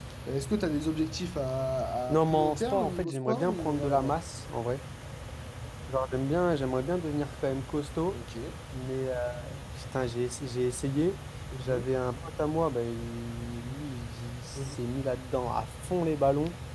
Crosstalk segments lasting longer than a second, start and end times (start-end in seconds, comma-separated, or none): 2.1-4.2